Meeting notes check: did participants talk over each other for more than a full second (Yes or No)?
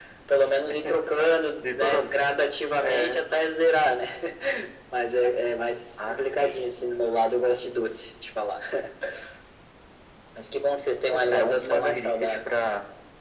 Yes